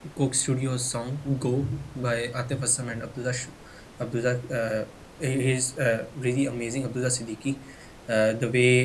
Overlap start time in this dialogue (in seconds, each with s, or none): none